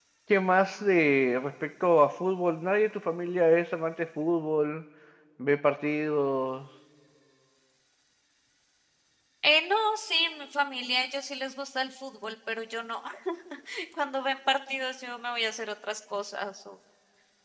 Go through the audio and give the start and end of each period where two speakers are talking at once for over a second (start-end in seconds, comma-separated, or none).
none